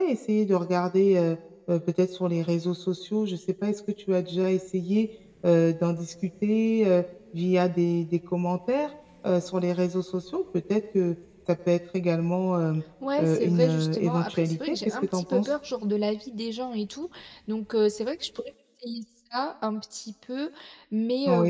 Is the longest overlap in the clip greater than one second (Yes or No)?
Yes